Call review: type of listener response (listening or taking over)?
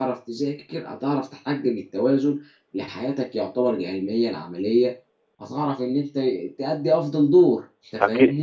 taking over